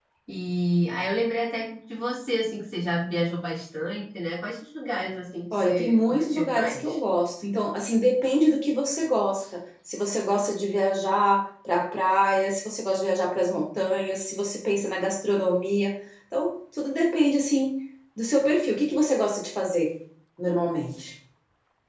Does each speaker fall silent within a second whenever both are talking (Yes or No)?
No